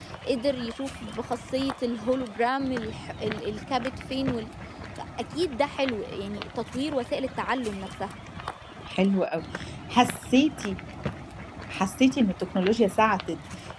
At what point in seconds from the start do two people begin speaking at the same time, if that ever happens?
none

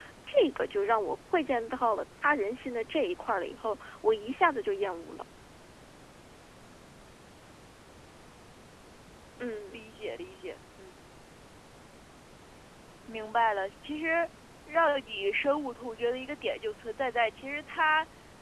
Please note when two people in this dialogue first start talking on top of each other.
none

